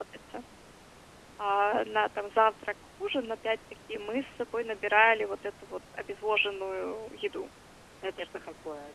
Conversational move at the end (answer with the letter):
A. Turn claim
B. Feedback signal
A